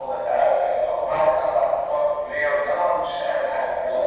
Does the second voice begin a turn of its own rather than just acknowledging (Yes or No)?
Yes